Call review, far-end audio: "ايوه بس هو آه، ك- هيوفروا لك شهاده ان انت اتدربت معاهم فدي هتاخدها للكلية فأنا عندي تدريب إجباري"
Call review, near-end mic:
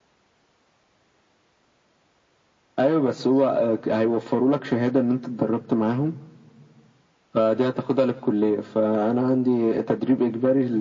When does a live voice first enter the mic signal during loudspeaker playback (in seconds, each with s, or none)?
none